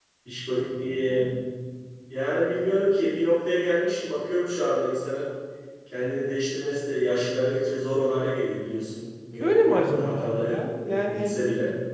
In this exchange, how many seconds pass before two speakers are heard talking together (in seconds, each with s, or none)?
9.4 s